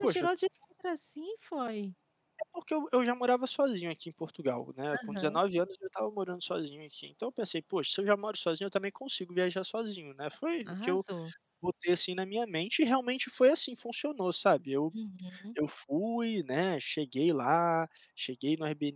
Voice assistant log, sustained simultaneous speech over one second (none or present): none